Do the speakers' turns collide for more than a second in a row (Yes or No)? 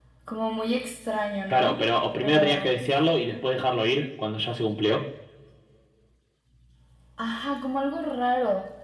Yes